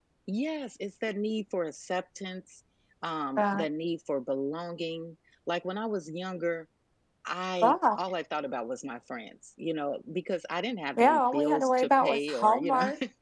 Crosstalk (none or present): present